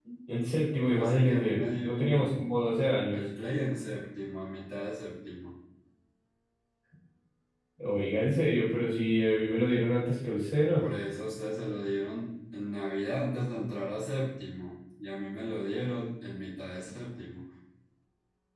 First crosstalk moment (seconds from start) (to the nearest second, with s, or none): 1 s